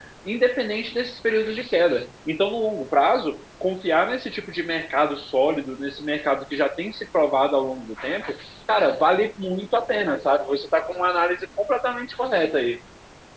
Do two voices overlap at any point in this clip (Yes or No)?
No